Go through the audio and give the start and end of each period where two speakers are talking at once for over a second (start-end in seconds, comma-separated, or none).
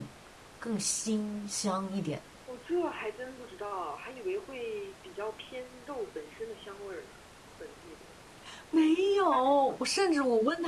none